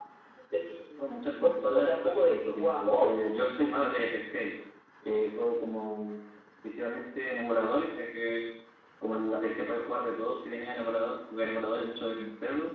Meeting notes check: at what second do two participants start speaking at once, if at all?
1.0 s

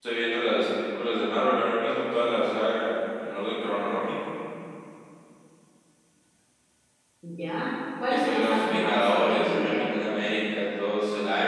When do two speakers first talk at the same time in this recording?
8.2 s

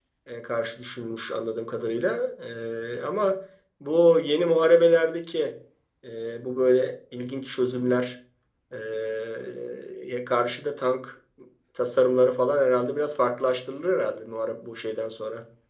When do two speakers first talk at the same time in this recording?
none

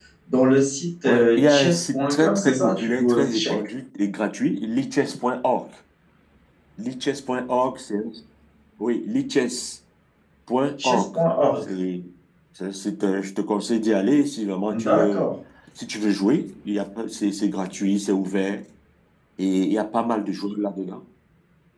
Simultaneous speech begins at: 1.0 s

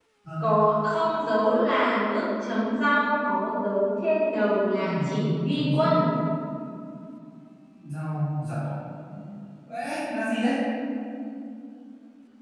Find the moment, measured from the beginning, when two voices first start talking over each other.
4.8 s

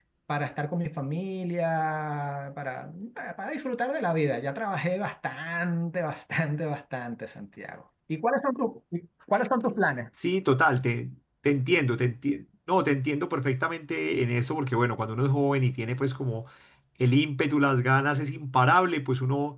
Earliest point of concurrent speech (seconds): none

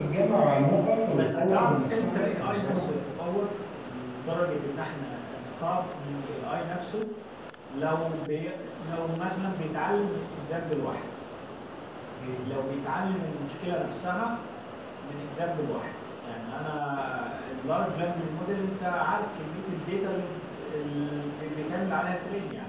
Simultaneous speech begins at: 1.1 s

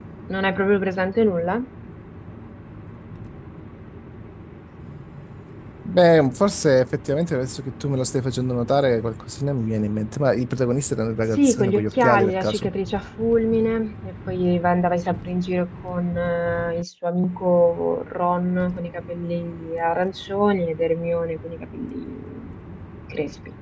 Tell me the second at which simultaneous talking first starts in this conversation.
11.4 s

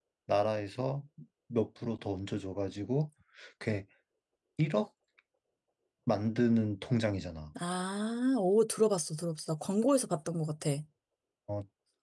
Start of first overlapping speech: none

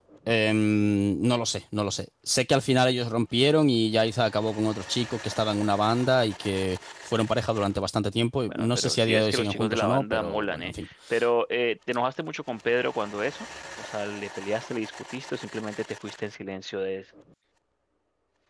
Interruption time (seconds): 8.5 s

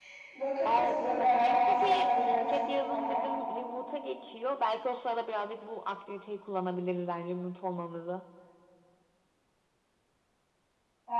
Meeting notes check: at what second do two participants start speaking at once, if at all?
0.7 s

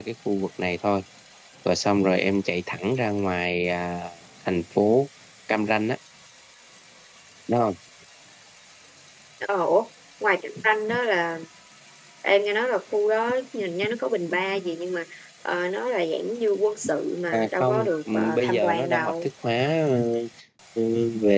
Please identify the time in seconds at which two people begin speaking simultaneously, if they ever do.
17.3 s

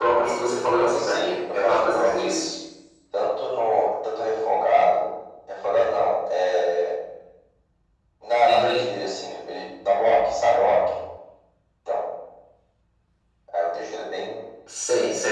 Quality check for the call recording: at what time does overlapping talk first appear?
1.0 s

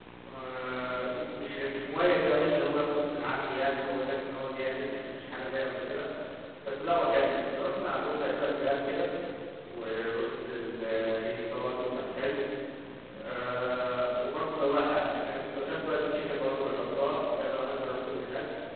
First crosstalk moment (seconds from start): none

